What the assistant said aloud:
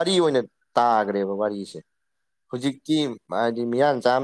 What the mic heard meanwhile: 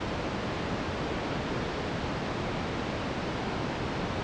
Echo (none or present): none